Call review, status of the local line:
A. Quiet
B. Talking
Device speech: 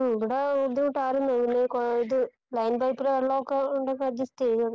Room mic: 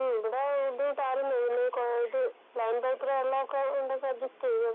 A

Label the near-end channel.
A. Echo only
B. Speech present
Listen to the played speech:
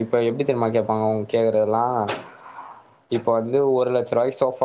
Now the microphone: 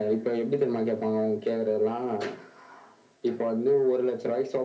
A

